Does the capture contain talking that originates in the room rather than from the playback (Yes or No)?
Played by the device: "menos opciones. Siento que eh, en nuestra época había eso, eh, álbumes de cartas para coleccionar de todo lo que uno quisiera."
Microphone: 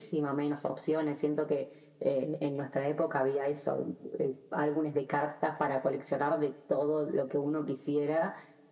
No